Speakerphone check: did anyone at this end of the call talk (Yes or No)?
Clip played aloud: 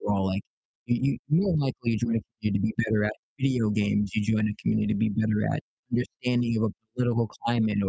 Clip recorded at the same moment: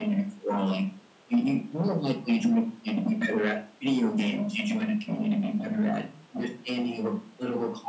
No